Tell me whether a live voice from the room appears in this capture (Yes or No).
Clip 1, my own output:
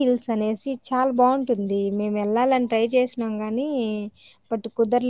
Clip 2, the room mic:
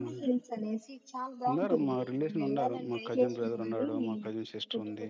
Yes